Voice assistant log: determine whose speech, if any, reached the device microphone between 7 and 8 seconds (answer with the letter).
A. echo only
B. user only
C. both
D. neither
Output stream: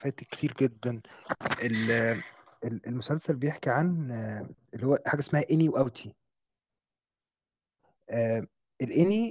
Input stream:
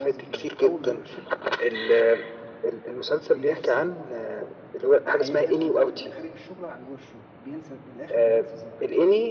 B